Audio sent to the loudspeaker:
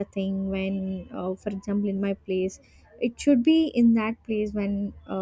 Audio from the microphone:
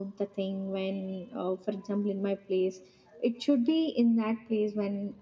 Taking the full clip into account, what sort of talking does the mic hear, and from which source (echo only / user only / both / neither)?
echo only